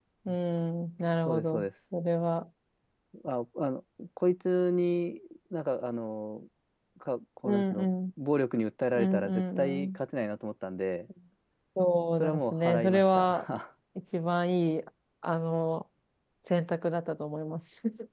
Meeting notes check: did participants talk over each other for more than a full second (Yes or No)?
Yes